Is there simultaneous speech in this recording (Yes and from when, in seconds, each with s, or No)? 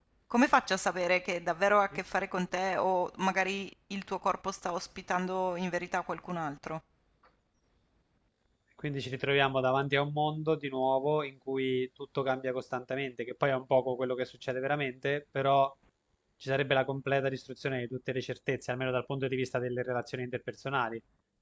No